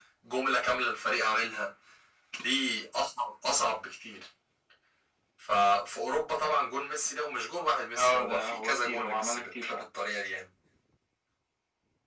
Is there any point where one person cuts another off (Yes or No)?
Yes